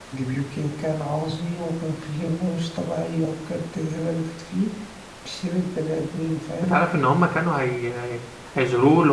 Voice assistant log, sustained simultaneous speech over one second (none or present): none